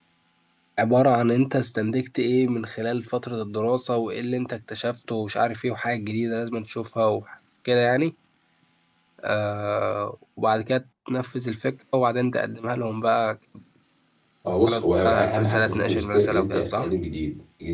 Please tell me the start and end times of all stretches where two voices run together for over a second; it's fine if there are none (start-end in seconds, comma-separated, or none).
14.7-16.9